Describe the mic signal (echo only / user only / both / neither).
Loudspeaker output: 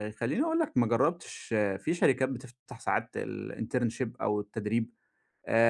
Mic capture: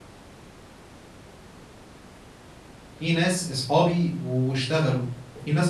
user only